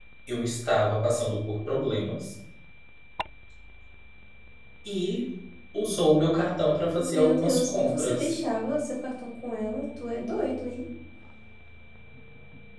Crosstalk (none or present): present